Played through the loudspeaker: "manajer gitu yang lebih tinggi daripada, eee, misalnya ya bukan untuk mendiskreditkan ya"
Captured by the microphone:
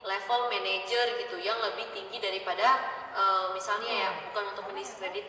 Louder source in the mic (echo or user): echo